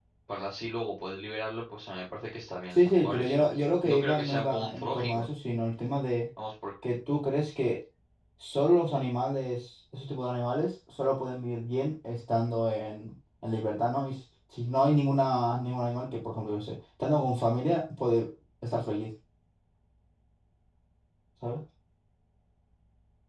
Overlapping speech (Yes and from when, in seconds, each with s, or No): Yes, from 2.8 s